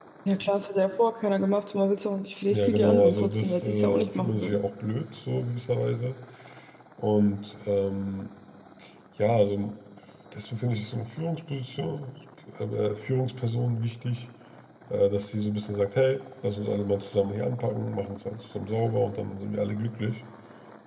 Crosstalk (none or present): present